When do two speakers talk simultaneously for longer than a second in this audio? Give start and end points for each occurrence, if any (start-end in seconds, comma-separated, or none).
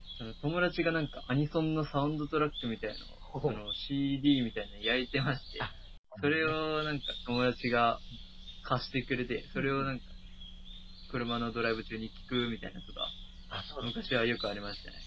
none